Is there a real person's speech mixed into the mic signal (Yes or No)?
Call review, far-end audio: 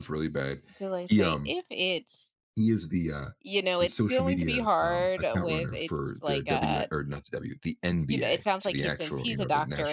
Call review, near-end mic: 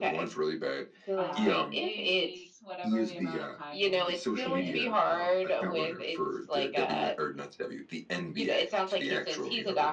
Yes